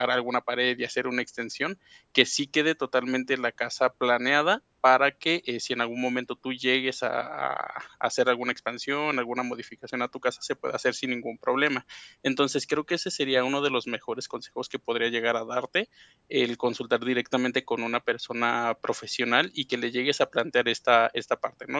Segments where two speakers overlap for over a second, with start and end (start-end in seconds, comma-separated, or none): none